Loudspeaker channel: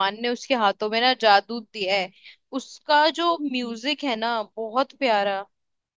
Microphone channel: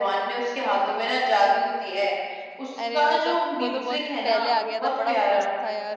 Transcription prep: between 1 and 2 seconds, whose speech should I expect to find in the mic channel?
echo only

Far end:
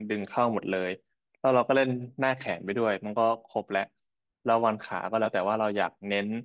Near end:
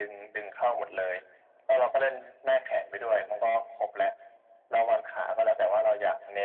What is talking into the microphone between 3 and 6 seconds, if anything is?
echo only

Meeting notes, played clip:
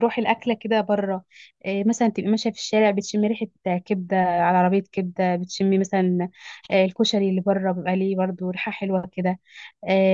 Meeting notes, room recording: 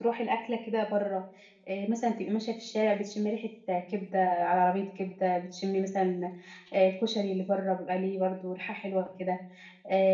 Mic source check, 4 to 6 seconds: echo only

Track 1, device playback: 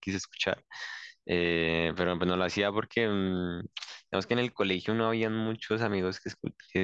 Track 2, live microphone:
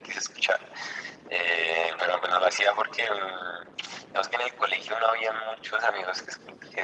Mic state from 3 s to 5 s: echo only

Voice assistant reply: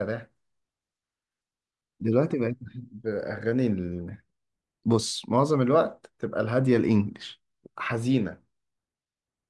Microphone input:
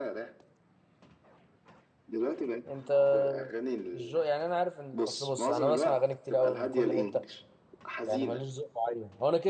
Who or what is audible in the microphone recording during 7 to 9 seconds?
both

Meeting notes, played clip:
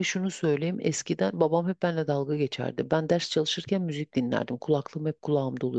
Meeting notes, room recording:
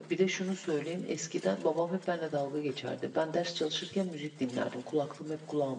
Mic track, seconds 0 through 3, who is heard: echo only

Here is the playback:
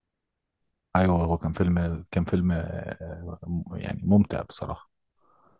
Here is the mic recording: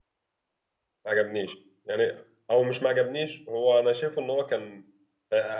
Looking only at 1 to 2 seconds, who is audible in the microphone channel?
user only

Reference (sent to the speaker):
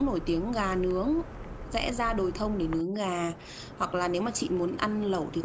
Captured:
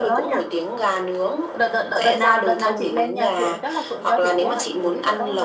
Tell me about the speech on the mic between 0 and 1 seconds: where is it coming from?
both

